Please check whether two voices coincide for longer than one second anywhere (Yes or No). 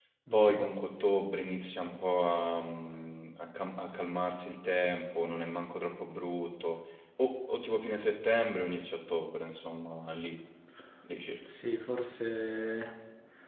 No